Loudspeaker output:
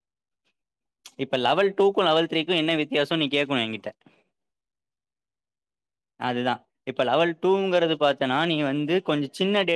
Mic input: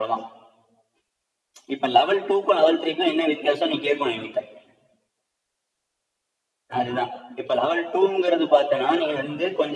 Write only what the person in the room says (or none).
none